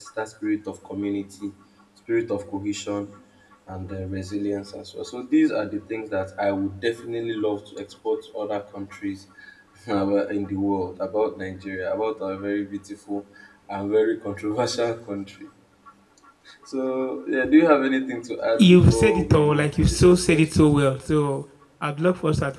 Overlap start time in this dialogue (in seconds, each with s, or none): 18.6 s